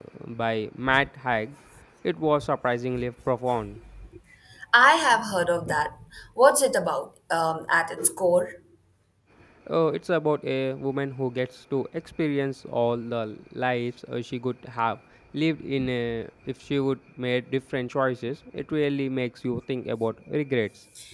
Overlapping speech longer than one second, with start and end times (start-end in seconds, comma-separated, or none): none